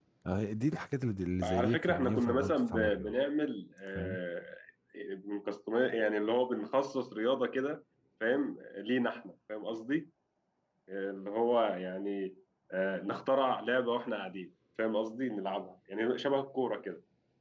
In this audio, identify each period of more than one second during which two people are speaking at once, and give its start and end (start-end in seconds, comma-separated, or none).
1.4-3.2